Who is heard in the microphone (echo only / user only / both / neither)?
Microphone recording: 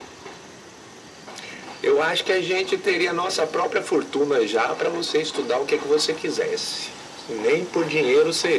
echo only